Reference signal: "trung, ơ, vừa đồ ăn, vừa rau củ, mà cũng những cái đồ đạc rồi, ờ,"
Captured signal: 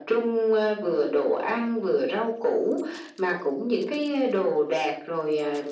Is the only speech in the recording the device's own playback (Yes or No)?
Yes